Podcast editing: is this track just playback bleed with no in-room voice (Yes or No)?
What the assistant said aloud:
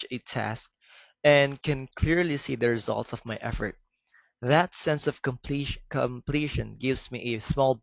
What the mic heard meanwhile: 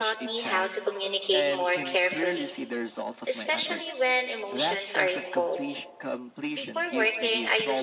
No